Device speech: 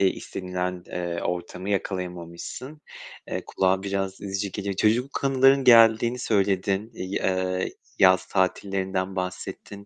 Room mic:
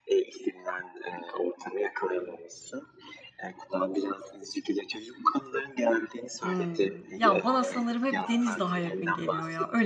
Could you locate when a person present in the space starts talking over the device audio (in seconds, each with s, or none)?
6.4 s